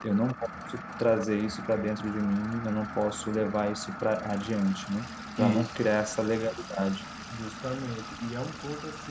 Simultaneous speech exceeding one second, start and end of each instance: none

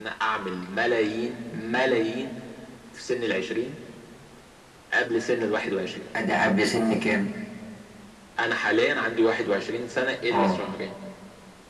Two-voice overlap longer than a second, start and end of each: none

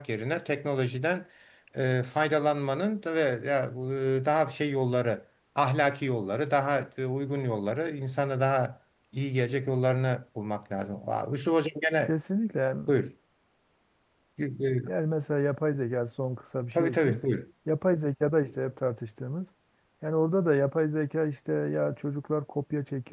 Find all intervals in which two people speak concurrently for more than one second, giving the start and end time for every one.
none

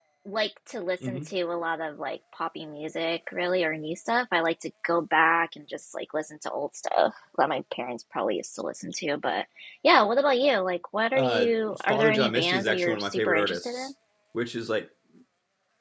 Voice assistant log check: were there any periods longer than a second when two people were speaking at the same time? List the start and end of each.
11.9-13.9

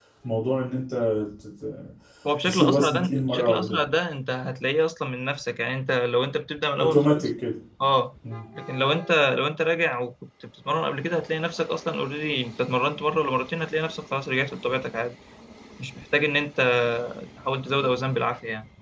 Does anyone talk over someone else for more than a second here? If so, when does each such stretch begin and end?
2.4-3.8

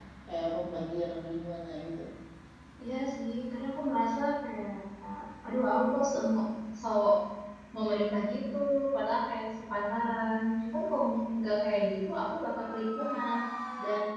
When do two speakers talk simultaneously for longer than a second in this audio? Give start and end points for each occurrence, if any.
none

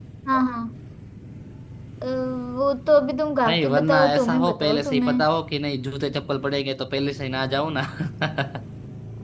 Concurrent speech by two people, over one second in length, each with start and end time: 3.5-5.1

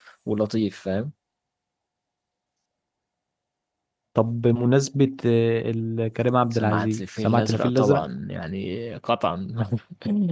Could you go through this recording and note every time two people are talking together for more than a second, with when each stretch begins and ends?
6.5-8.0

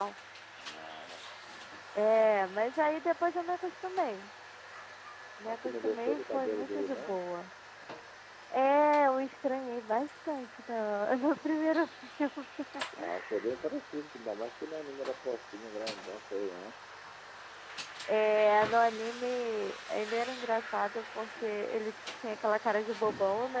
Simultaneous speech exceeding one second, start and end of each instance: 5.5-7.2

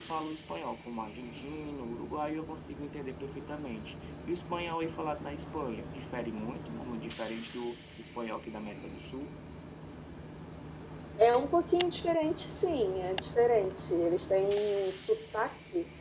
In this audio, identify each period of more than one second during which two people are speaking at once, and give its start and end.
none

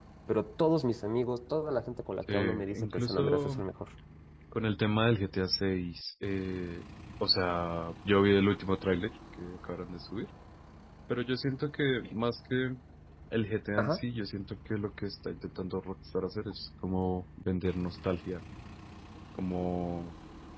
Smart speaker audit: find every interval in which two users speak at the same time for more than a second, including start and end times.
2.3-3.6

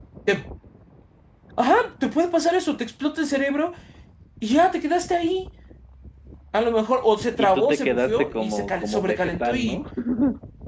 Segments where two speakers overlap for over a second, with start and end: 7.4-9.8

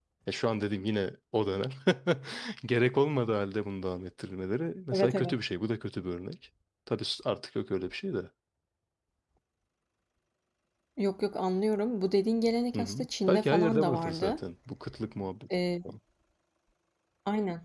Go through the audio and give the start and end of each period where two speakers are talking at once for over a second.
12.8-14.4

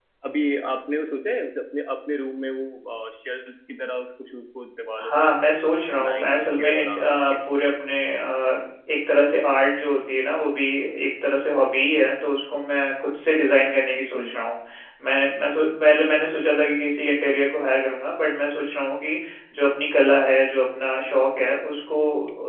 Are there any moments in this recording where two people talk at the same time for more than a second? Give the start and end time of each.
6.1-7.4

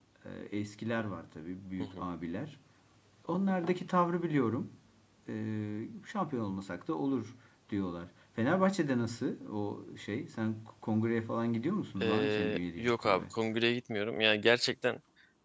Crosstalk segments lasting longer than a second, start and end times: 12.0-13.2

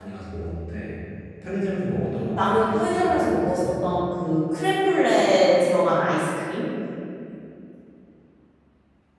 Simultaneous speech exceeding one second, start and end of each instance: 2.4-3.7

